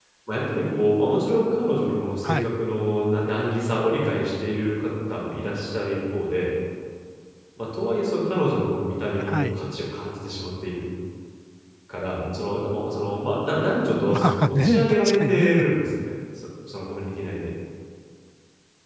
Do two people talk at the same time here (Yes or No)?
Yes